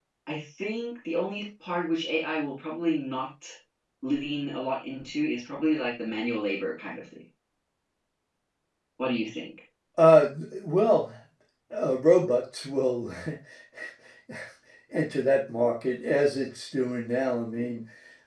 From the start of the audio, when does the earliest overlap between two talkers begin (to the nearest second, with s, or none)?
none